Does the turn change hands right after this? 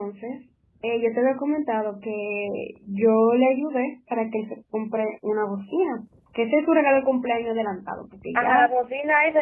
Yes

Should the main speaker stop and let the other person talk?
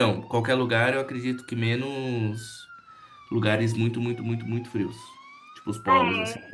Yes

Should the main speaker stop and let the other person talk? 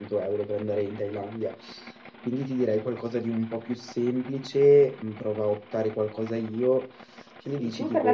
Yes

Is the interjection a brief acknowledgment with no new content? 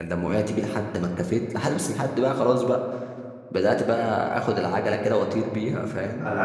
No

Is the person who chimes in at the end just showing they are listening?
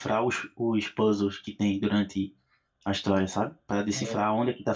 Yes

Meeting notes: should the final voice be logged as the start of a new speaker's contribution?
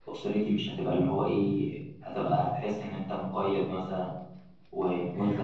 No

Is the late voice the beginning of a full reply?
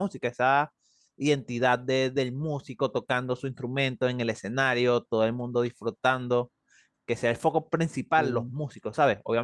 No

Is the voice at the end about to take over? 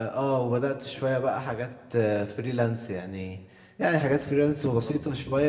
No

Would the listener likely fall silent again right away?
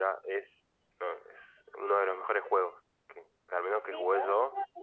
No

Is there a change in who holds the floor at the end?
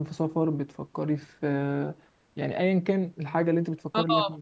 Yes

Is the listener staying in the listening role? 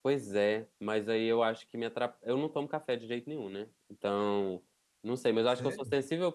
Yes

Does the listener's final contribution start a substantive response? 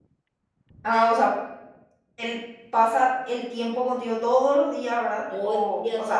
Yes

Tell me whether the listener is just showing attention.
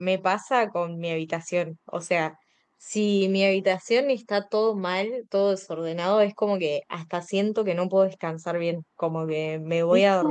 Yes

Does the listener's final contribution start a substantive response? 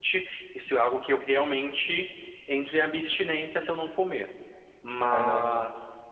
No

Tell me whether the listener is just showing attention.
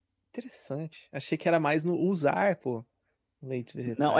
No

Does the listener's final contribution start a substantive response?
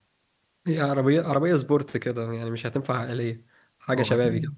Yes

